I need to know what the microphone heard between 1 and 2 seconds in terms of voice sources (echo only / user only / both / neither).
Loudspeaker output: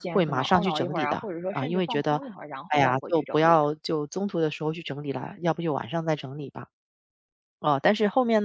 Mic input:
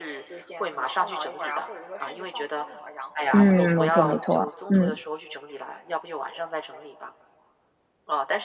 echo only